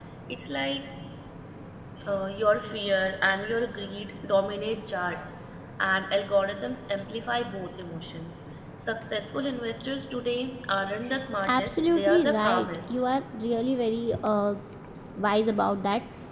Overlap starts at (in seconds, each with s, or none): 11.4 s